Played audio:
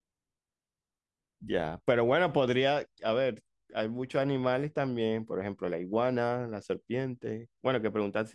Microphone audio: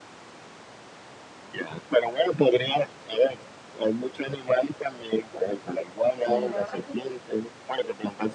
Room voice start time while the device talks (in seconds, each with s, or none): 6.2 s